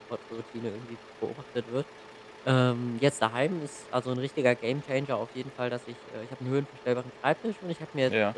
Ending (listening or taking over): listening